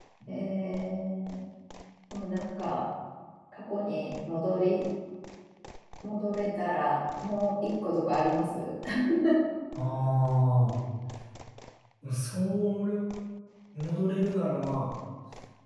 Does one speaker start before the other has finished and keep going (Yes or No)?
No